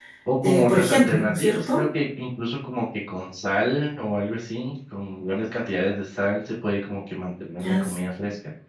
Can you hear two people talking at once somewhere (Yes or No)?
Yes